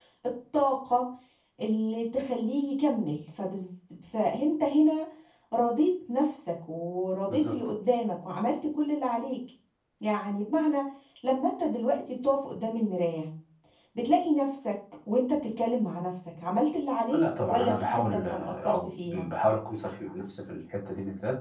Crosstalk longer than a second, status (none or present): present